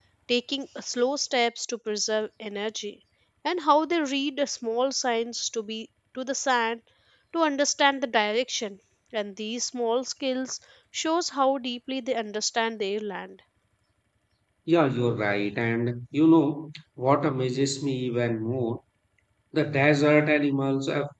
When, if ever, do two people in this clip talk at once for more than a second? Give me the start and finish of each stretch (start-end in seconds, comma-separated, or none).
none